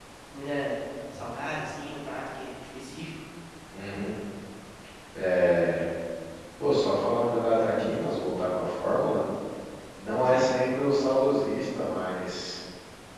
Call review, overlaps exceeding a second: none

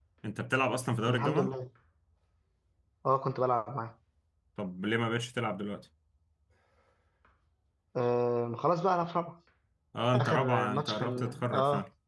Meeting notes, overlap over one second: present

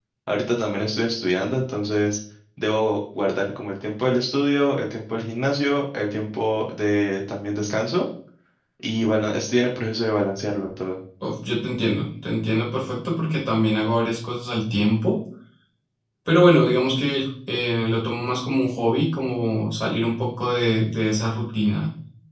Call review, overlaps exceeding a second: none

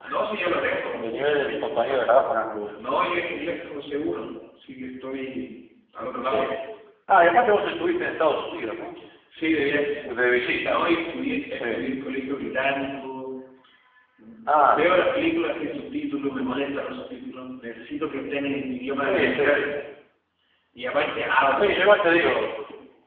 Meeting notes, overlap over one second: none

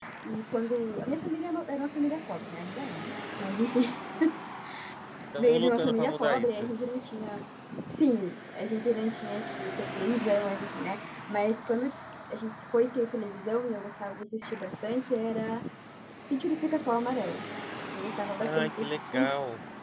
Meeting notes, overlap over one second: present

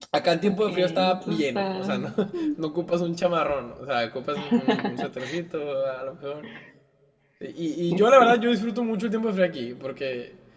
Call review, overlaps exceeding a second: present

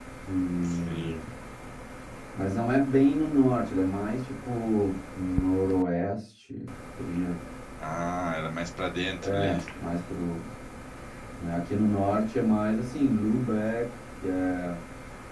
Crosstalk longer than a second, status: none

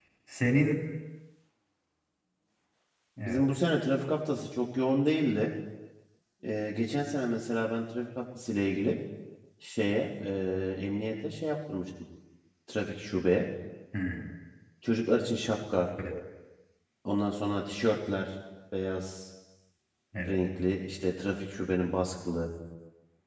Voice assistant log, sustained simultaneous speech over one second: none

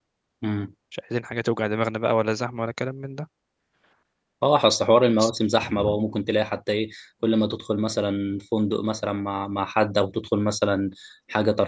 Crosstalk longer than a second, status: none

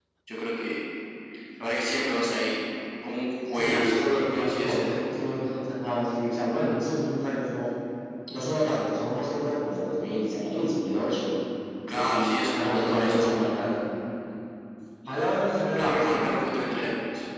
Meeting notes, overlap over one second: present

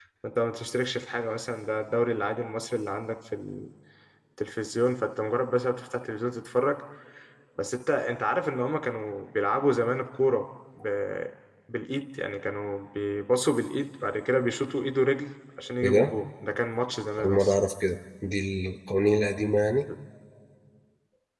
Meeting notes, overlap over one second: none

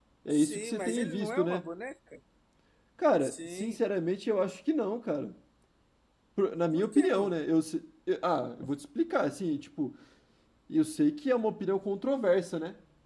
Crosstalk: present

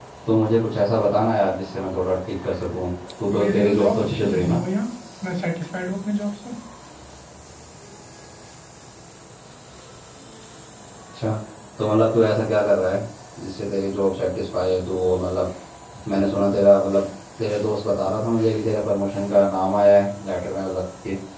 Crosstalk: present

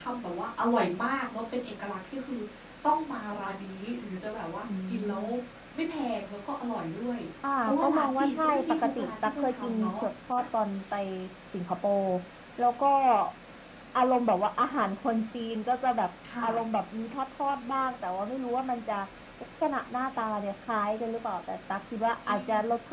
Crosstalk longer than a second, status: present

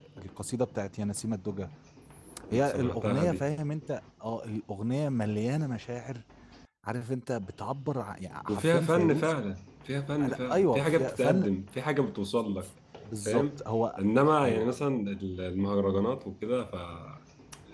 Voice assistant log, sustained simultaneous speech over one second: present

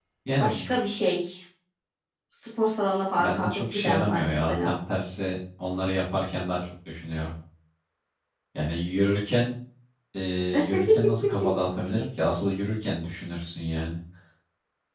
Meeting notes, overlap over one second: present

